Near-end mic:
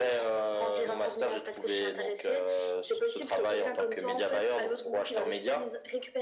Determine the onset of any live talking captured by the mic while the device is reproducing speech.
none

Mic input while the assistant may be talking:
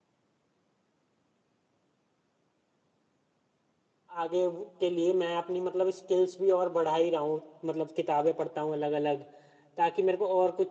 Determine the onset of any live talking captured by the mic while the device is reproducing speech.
4 s

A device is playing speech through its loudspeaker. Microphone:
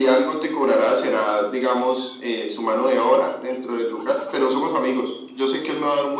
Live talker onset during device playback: none

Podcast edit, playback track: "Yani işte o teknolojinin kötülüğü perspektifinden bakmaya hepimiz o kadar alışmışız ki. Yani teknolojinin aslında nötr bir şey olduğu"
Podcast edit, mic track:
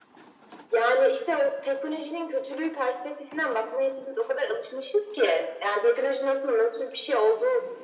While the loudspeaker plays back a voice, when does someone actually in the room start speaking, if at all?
none

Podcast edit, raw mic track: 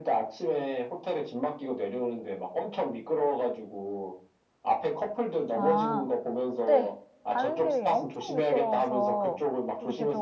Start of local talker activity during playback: 6 s

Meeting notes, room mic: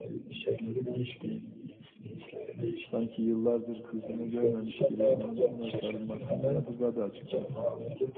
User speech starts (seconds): 3 s

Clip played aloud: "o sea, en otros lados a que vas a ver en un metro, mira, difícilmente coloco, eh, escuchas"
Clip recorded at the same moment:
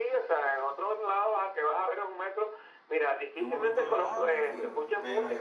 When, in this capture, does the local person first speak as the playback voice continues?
3 s

